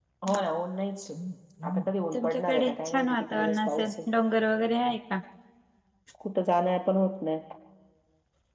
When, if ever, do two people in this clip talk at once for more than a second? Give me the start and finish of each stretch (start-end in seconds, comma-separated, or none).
2.1-3.9